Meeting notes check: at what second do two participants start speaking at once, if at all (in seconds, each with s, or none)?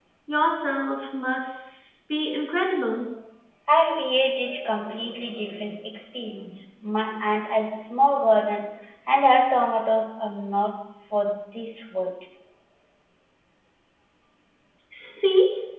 none